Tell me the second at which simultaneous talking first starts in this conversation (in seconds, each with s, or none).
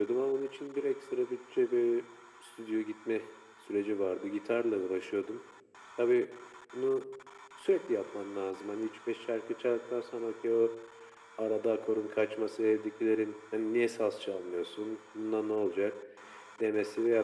none